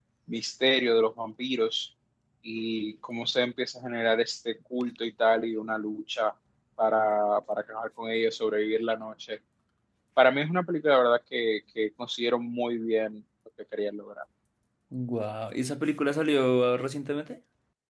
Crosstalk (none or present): none